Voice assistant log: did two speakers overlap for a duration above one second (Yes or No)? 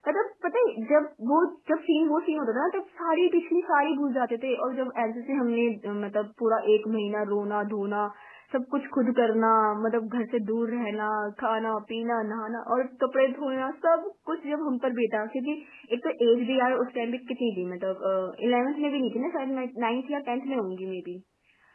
No